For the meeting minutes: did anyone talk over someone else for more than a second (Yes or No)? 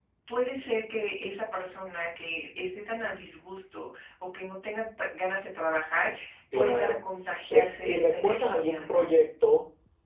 Yes